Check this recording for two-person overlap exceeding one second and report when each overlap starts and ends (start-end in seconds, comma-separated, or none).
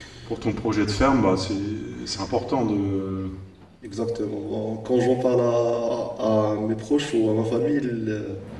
none